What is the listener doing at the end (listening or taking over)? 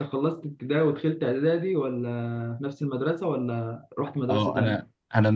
taking over